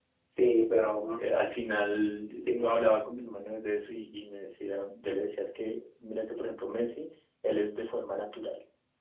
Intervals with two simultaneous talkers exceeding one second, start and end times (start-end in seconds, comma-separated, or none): none